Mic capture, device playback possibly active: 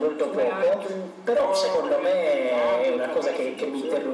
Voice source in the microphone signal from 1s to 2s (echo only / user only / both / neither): echo only